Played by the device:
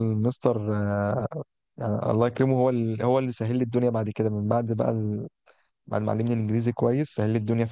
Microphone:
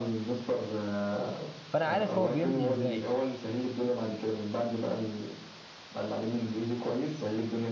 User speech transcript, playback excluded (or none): فانا عارف هو بيمضي ازاي